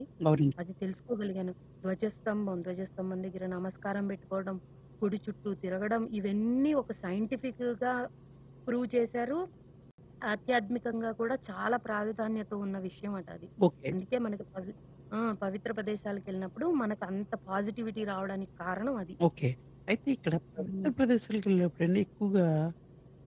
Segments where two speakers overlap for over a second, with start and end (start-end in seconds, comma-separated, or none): none